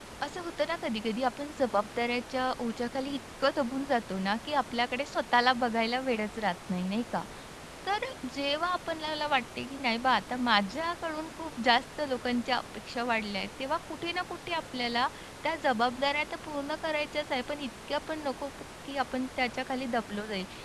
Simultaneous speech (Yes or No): No